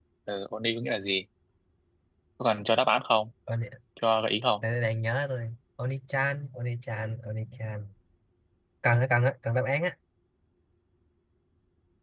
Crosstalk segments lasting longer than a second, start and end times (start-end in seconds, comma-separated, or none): none